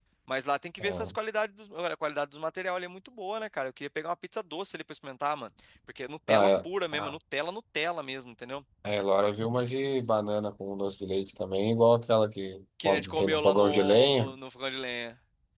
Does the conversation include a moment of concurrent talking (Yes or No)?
Yes